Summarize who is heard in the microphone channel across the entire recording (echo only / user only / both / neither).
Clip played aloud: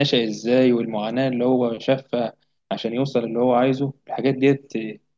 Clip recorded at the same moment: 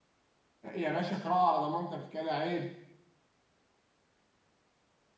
user only